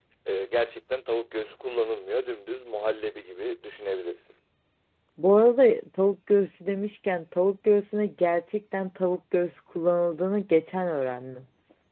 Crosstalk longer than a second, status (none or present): none